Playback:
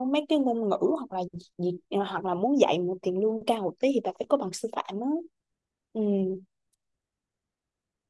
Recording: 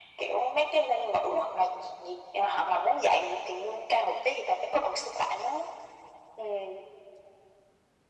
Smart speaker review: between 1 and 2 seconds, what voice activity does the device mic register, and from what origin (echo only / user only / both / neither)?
echo only